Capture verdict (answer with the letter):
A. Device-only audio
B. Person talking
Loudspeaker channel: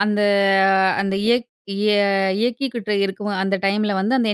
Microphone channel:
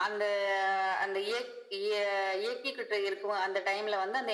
A